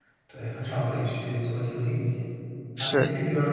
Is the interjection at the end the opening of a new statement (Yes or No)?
No